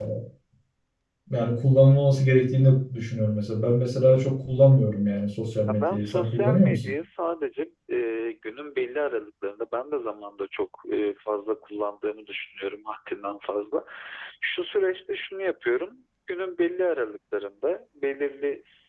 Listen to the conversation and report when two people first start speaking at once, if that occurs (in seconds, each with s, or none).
5.7 s